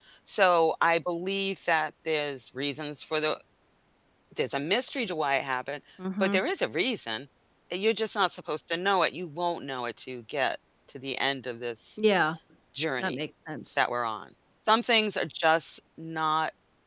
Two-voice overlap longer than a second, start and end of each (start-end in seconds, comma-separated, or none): none